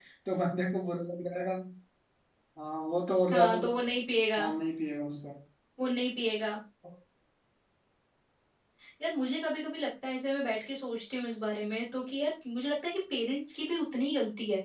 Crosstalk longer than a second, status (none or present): none